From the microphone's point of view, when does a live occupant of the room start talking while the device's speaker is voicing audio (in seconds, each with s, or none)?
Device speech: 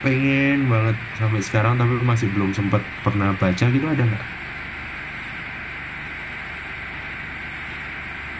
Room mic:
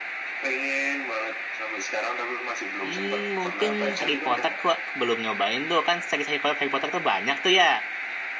2.8 s